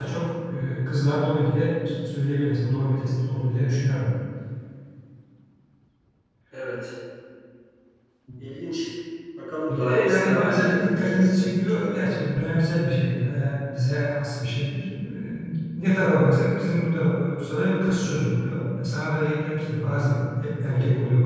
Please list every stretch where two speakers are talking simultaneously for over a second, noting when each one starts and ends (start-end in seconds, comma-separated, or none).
9.7-11.8